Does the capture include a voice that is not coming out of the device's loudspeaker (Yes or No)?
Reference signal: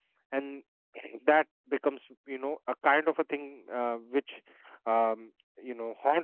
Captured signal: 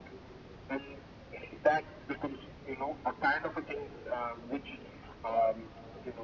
No